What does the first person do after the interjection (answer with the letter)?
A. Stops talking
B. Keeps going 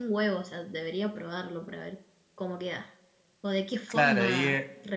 A